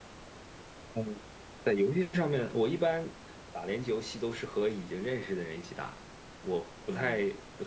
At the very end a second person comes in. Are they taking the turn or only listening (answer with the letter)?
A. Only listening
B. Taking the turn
A